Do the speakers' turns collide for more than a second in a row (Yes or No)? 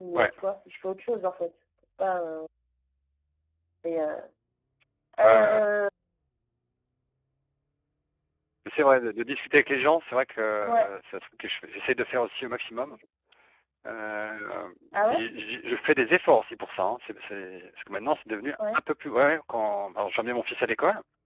No